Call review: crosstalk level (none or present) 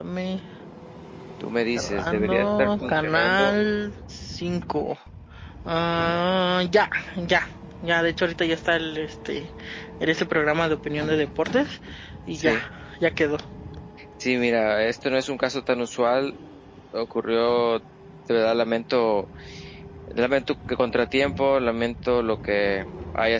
present